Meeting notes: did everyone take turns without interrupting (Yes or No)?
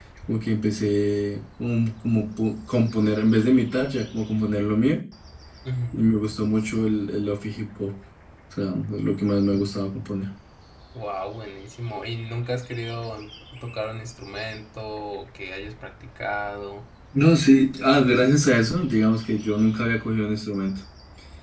Yes